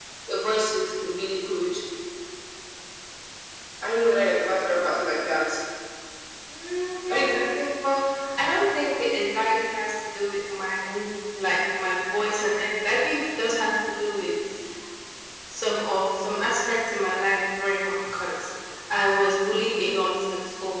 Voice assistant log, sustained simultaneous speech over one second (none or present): none